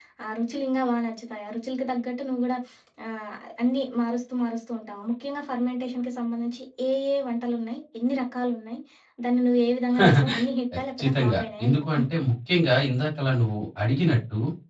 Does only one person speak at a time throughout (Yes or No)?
No